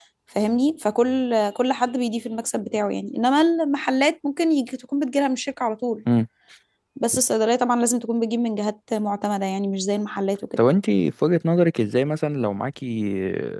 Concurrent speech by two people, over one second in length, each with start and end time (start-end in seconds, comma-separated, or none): none